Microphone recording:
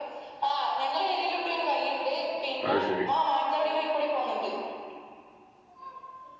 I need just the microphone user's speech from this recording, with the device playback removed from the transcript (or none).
അത് ശരി